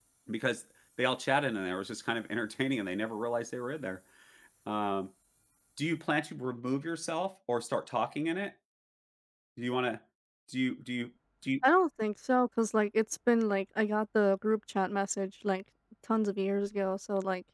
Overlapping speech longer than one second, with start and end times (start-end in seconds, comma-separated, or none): none